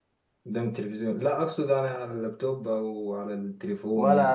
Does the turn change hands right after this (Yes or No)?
Yes